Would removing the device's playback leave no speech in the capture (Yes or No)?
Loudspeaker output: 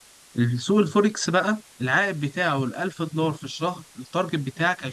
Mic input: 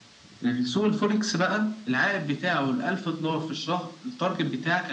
Yes